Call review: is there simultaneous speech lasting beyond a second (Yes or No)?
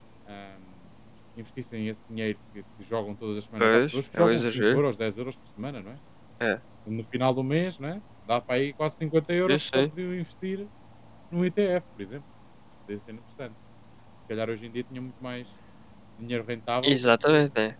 Yes